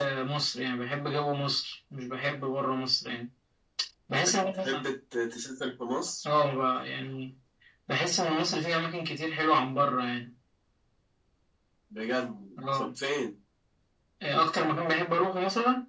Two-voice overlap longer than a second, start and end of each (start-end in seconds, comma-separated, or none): none